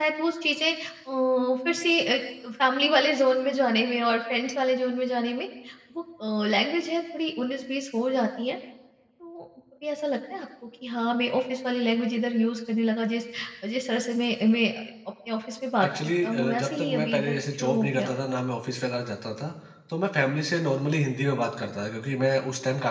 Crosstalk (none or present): present